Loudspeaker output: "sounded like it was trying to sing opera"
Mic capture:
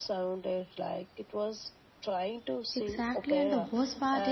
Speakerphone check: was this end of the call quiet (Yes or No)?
No